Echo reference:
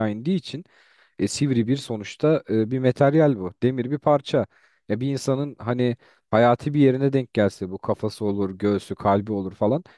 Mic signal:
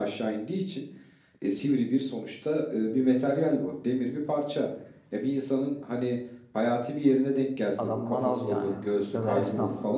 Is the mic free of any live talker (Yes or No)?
No